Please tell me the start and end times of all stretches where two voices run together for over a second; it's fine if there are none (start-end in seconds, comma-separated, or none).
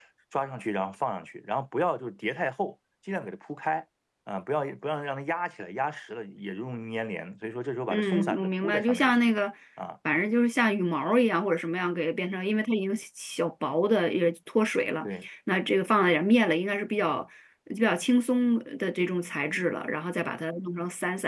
7.9-9.2